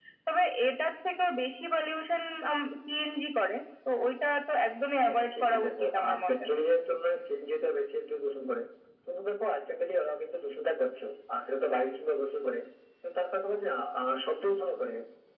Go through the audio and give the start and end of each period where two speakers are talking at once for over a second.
5.0-6.4

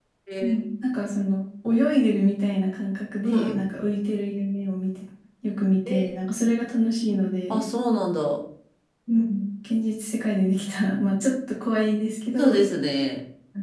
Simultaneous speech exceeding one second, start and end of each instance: none

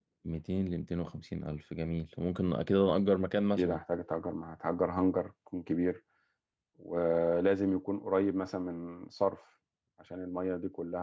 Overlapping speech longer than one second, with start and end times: none

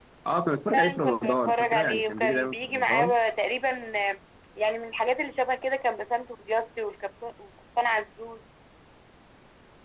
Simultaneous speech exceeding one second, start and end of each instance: 0.7-3.1

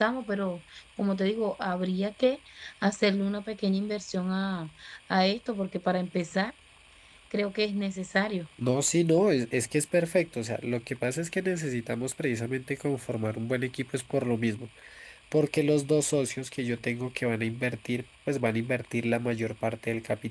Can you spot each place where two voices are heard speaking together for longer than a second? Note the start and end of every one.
none

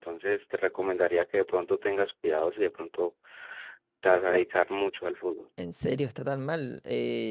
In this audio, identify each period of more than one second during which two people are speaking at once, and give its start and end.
none

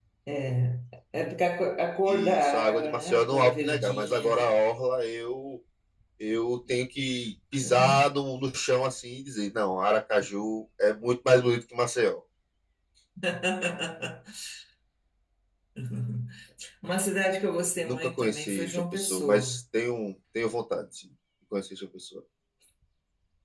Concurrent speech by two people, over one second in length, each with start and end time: 2.1-4.6, 17.8-19.6

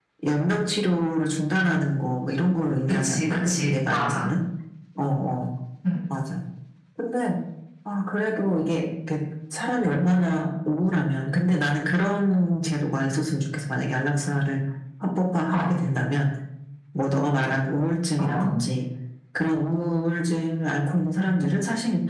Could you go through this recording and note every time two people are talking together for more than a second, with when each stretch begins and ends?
3.0-4.2

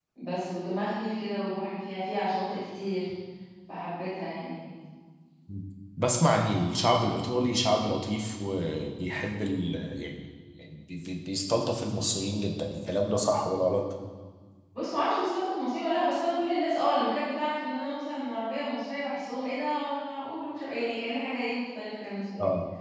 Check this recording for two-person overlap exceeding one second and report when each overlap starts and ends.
none

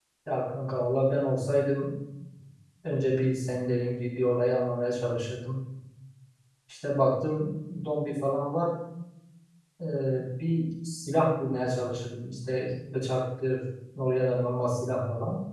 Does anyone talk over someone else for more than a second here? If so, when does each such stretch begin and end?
none

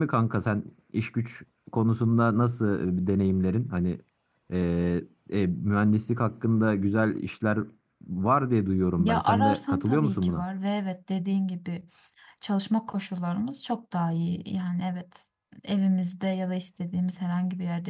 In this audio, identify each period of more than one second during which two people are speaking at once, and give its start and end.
9.0-10.4

